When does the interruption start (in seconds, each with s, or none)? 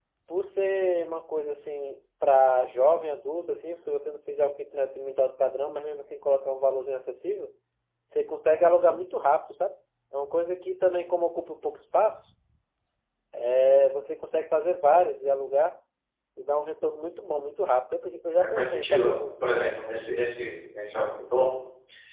18.4 s